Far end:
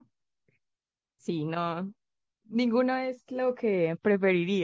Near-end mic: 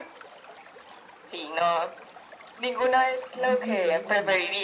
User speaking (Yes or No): Yes